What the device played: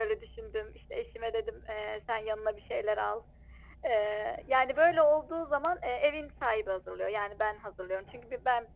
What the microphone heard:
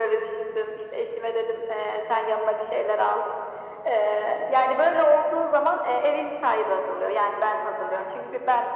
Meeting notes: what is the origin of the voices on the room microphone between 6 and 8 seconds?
echo only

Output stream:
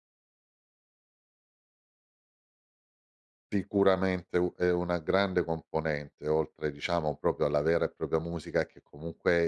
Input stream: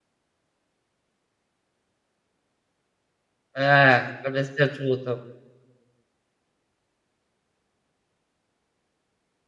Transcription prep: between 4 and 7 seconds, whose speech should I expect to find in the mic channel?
user only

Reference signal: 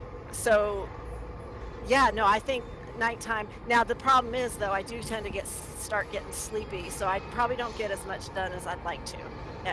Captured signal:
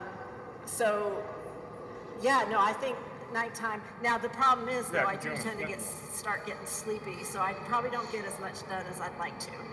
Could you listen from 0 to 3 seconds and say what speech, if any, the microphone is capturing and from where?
echo only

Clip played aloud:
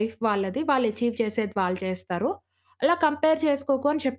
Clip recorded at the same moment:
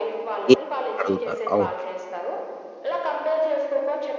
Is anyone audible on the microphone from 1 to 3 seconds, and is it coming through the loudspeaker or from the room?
both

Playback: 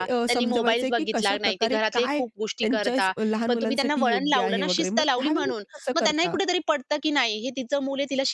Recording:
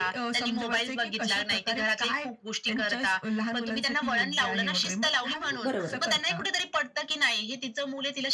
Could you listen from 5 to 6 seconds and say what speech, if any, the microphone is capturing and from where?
both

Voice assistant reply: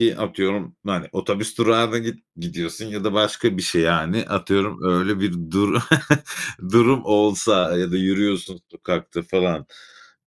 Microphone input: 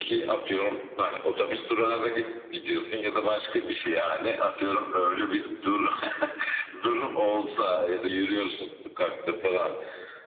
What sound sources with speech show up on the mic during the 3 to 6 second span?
echo only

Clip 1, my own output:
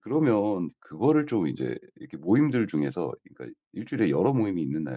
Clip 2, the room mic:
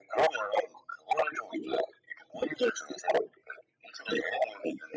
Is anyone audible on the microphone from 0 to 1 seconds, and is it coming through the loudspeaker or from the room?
echo only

